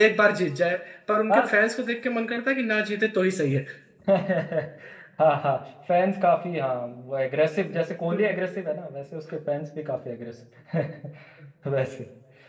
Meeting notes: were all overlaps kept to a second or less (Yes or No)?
Yes